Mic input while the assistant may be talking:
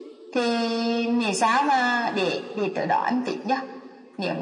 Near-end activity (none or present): none